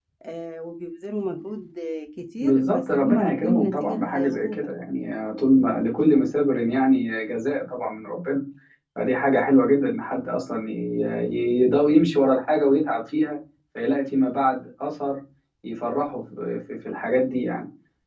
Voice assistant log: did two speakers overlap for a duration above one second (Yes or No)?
Yes